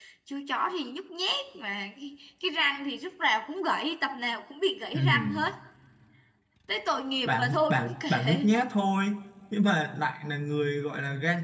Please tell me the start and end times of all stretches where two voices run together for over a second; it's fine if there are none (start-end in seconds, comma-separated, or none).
7.3-8.5